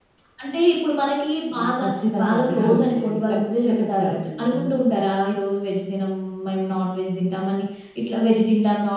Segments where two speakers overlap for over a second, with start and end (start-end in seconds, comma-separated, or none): 2.2-4.6